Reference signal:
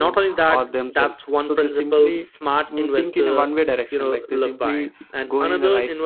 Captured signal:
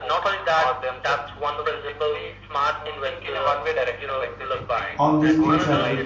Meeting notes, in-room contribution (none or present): present